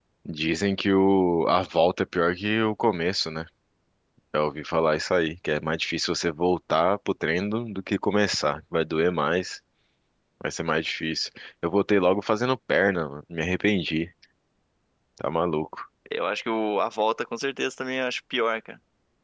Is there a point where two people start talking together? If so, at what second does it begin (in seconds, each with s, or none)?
none